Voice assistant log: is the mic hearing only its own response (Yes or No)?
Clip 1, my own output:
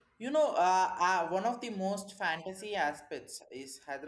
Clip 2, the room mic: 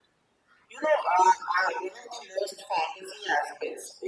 Yes